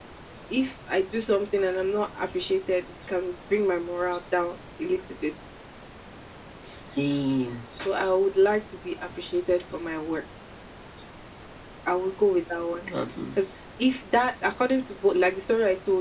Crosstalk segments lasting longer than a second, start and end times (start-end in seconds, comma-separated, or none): none